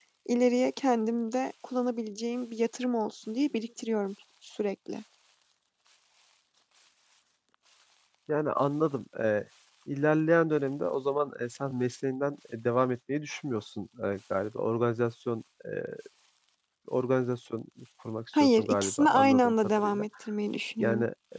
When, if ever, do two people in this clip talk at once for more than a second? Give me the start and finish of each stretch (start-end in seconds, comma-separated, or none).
18.4-20.1